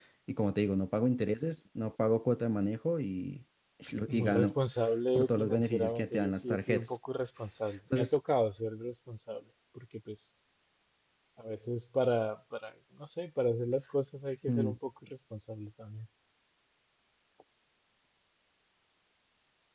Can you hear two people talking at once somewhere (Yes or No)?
Yes